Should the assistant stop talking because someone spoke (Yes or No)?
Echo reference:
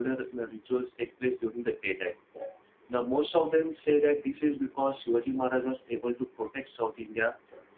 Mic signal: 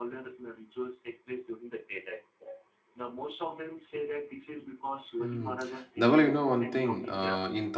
Yes